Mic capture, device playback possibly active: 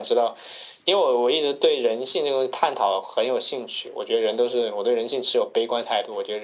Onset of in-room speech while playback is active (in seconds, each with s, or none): none